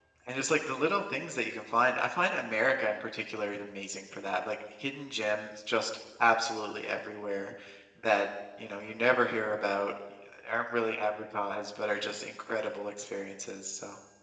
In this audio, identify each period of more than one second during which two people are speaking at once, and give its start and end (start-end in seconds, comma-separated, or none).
none